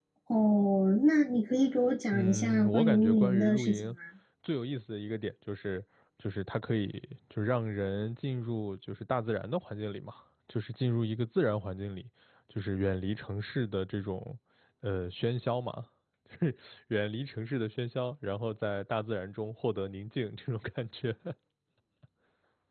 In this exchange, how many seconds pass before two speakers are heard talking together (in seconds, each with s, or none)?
2.1 s